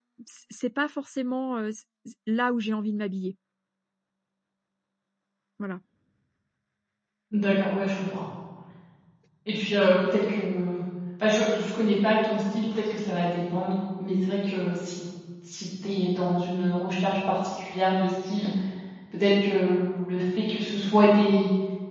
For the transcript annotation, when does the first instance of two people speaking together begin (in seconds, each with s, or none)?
none